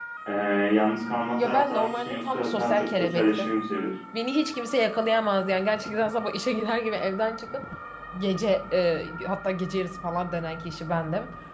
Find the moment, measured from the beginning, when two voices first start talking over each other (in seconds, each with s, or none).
1.4 s